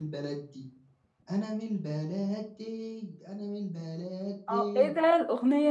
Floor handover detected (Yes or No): Yes